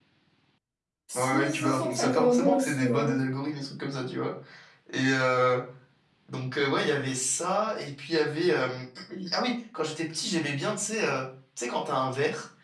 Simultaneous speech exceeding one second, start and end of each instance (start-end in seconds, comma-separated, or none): 1.2-3.1